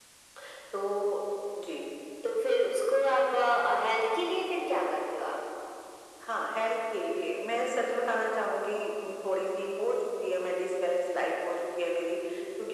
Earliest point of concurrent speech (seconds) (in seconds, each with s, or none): none